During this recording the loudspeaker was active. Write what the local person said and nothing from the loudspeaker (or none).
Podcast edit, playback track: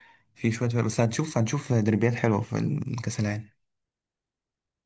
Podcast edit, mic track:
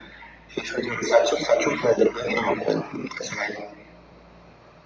none